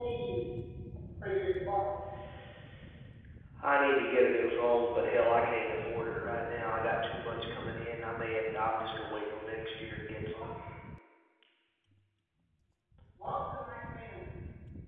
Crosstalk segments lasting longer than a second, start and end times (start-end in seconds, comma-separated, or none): none